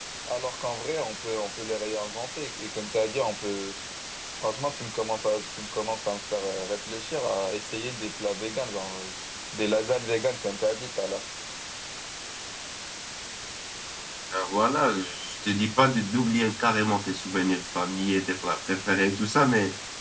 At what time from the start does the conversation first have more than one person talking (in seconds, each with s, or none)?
none